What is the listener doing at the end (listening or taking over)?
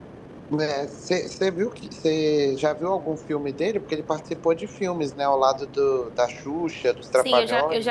taking over